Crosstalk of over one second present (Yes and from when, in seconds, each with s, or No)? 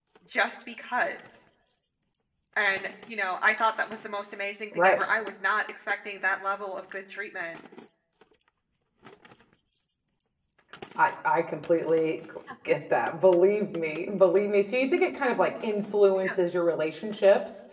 No